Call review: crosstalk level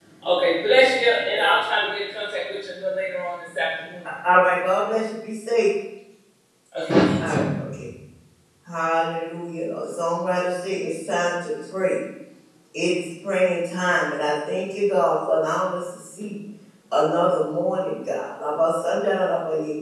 none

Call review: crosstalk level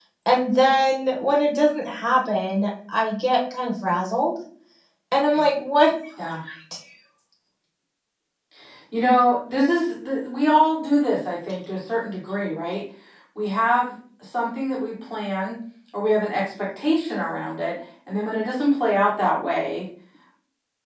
none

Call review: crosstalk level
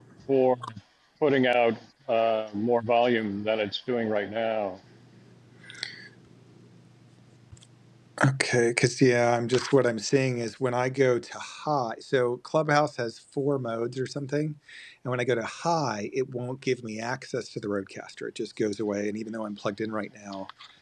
none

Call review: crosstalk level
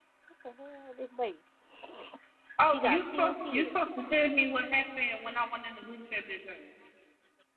present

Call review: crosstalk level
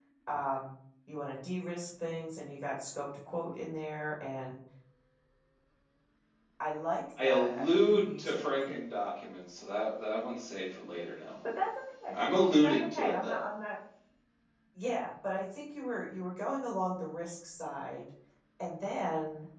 present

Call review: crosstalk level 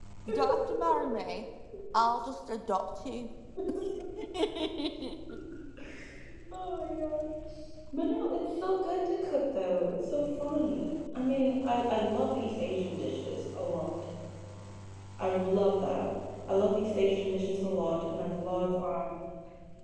none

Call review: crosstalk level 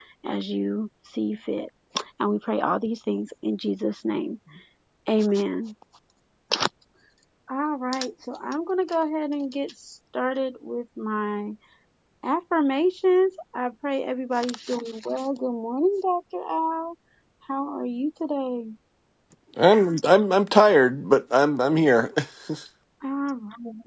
none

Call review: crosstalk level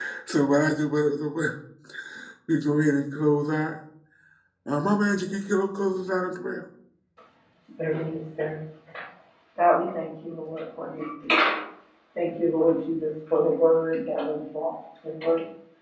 none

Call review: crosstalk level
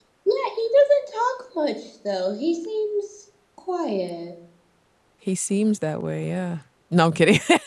none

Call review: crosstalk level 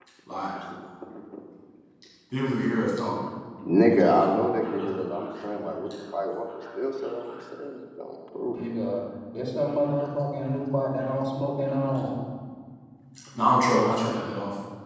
none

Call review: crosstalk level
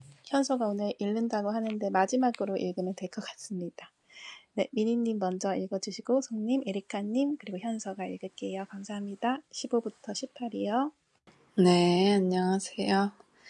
none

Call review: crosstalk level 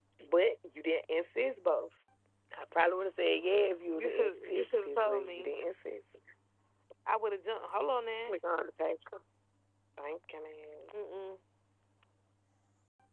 present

